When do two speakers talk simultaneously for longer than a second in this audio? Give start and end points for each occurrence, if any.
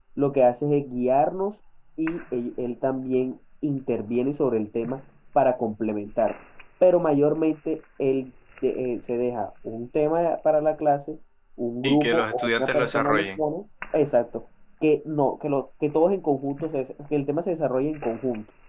11.8-13.4

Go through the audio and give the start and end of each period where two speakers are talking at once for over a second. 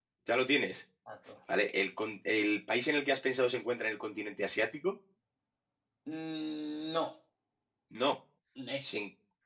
none

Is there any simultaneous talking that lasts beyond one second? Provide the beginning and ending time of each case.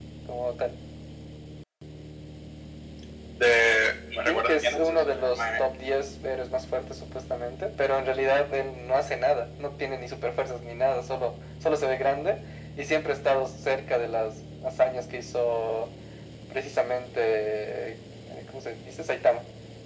4.2-5.6

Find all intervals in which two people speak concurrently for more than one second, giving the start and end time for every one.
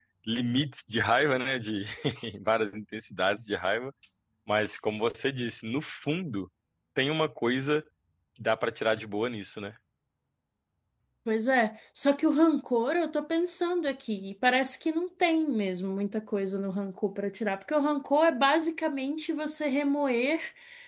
none

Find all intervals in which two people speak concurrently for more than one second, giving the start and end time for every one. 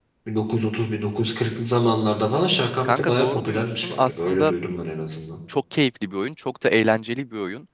2.8-4.5

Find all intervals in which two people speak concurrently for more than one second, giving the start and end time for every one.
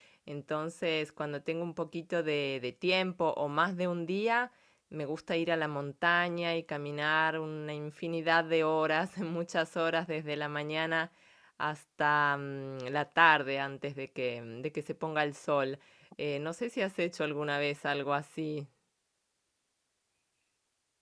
none

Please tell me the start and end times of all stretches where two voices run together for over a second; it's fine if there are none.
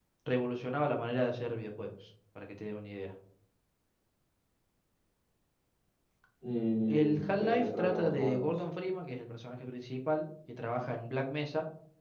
6.9-8.6

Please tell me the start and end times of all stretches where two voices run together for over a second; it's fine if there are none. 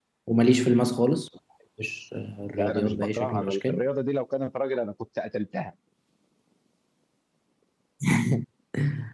2.5-3.8

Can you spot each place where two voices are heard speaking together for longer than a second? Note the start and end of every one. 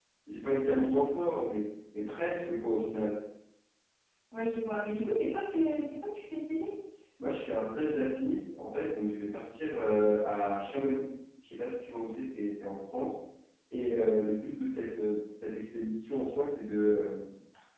none

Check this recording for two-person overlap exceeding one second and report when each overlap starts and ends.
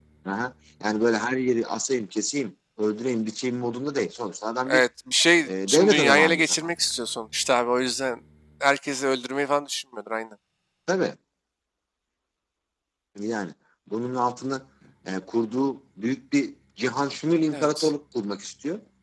5.4-6.9

